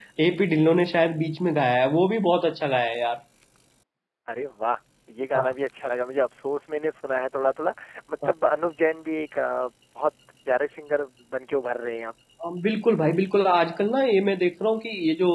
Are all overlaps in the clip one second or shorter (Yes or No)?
Yes